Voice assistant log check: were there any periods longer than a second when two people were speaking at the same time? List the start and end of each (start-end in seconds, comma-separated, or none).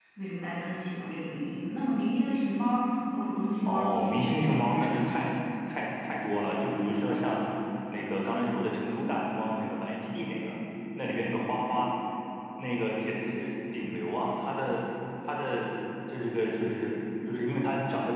3.6-5.2